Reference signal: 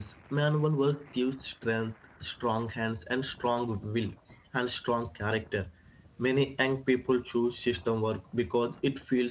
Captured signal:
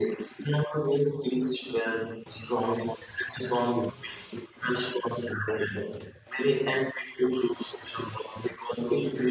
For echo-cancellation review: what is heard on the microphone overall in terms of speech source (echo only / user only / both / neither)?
echo only